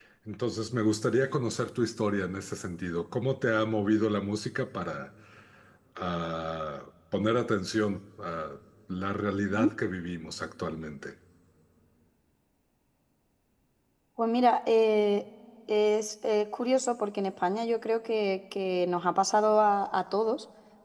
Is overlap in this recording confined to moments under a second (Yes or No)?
Yes